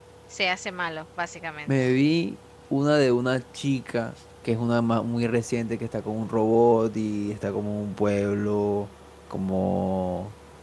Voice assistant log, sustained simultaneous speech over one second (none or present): none